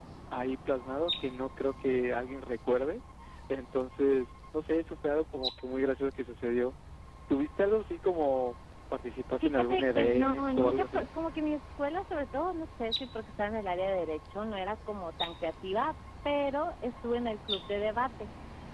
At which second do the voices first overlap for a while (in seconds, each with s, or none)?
9.4 s